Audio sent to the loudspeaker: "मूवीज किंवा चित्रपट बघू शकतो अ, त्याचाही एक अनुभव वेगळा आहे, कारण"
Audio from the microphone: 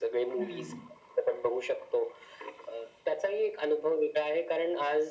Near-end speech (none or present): present